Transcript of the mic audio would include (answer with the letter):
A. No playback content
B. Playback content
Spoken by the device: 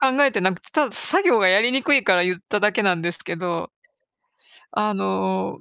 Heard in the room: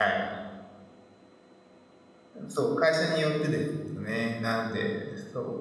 A